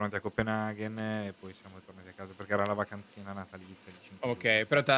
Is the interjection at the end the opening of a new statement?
Yes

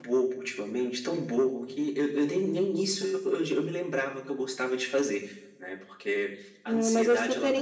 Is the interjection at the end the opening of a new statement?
Yes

